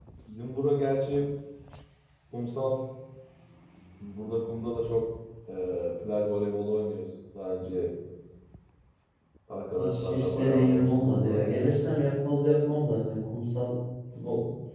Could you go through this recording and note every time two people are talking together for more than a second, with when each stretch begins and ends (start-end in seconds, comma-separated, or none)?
9.8-11.8